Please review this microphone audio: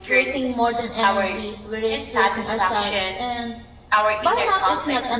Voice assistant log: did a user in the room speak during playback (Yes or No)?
Yes